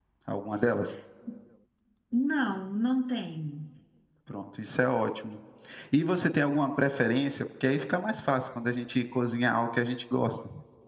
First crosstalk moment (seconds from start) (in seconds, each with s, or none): none